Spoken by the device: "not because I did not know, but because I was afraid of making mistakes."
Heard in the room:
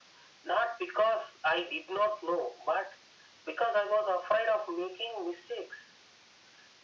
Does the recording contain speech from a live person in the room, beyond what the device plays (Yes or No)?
No